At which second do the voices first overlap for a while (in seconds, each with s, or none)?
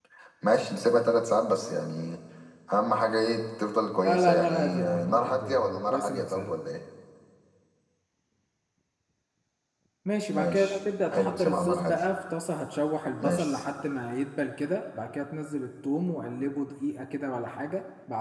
4.0 s